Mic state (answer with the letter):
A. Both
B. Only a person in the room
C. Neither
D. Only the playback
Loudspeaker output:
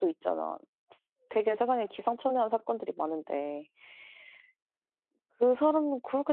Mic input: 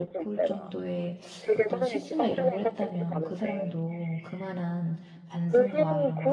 A